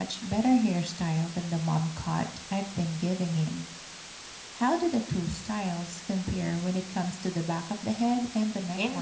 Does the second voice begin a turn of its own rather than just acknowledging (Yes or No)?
Yes